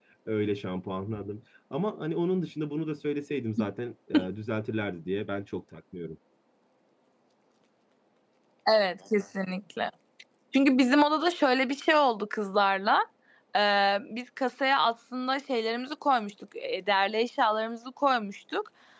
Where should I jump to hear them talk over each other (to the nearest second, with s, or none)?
none